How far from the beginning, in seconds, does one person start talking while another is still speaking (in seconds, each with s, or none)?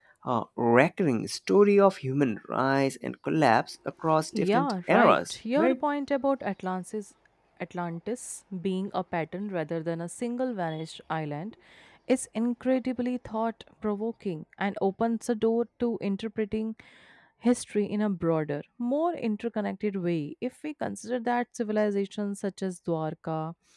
4.3 s